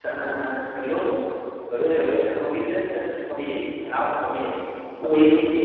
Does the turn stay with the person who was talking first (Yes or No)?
Yes